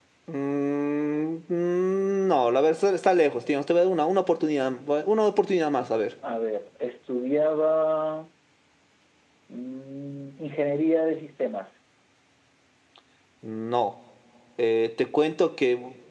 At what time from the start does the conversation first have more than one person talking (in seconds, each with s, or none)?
none